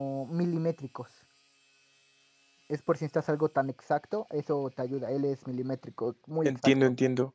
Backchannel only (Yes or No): No